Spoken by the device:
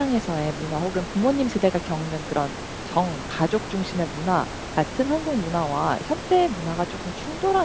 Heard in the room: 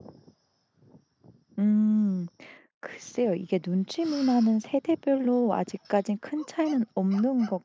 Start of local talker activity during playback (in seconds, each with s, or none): 1.6 s